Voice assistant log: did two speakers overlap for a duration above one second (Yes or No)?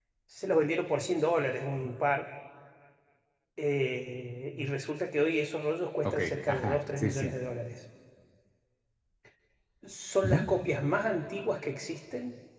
Yes